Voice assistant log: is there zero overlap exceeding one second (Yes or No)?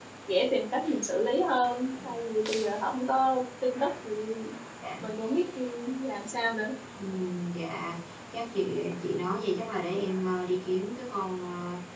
Yes